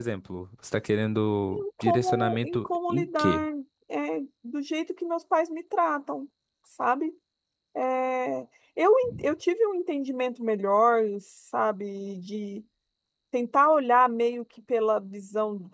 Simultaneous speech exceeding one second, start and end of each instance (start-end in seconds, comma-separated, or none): 1.5-3.4